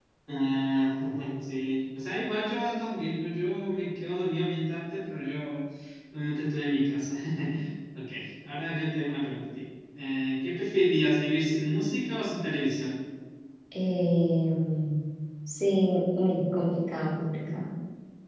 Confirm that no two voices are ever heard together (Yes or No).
Yes